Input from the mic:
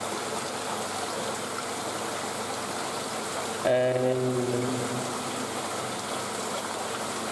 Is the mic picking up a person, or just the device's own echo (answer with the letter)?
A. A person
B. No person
A